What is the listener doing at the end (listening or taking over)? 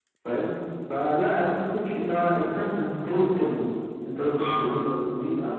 listening